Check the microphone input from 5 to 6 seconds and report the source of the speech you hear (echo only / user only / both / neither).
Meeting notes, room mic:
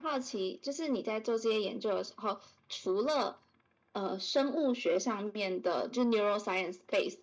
echo only